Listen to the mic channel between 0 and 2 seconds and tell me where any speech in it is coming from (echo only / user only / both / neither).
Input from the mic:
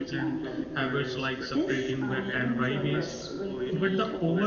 both